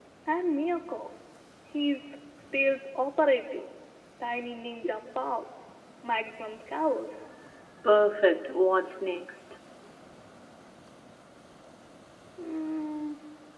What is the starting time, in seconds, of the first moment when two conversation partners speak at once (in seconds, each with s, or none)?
none